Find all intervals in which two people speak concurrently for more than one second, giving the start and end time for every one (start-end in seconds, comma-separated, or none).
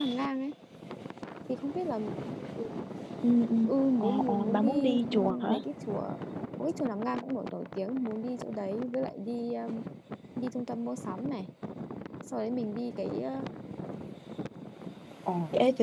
4.0-5.6